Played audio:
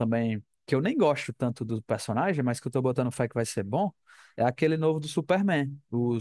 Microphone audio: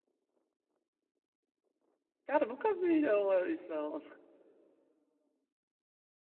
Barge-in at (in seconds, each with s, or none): 2.2 s